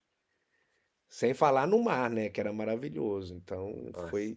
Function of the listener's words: listening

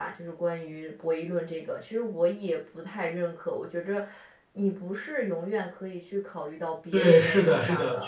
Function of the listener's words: taking over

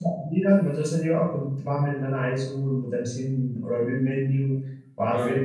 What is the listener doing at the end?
listening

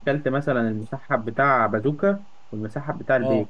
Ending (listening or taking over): listening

